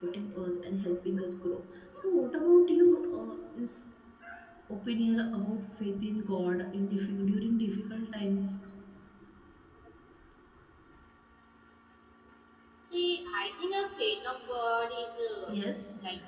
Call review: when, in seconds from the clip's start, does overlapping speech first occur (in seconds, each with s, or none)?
none